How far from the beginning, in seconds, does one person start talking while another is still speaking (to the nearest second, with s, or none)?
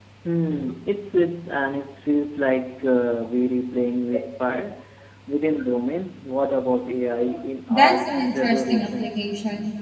8 s